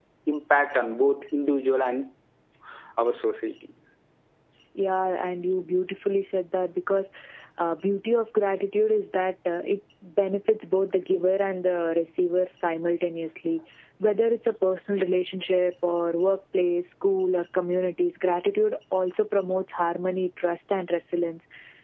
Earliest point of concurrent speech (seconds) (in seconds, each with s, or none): none